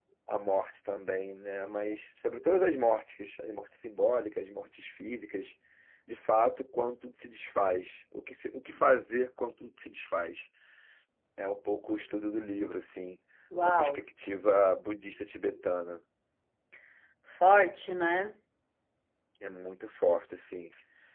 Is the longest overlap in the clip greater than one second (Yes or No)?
No